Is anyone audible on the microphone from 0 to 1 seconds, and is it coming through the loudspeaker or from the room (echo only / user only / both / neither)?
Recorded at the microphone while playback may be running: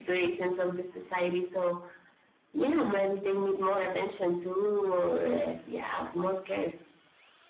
echo only